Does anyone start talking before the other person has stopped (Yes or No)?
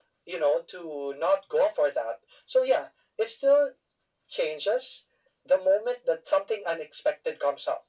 No